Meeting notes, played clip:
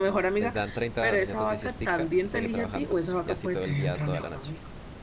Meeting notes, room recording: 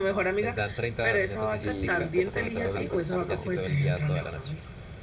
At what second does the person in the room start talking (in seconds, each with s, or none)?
1.6 s